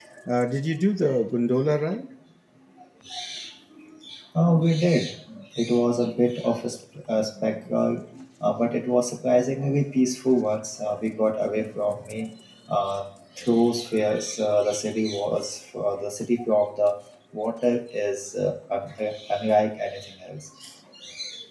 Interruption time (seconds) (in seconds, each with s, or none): none